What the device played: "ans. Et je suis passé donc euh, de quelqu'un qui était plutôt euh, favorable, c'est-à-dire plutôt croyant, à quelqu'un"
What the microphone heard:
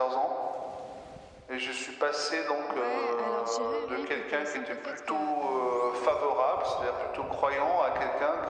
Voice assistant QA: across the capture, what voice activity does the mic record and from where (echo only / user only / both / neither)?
both